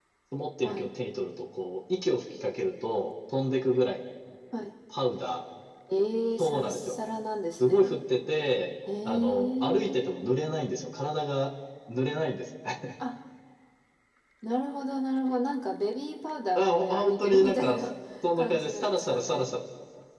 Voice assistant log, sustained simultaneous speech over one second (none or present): present